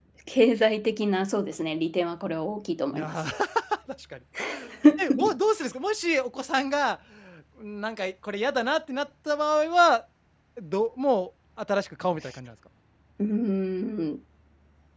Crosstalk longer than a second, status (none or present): none